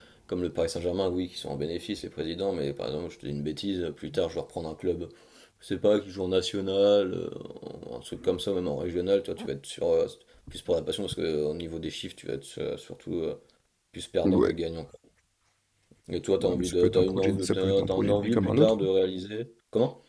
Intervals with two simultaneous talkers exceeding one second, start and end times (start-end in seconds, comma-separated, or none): 16.4-18.8